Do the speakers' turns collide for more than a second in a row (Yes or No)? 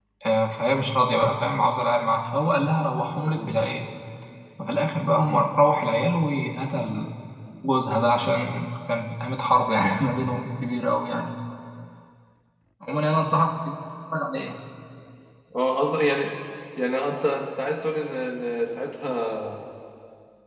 No